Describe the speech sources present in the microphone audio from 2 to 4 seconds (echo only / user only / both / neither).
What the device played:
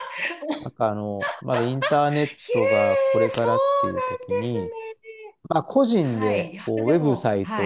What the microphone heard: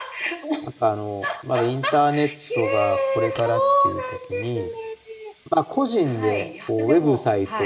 echo only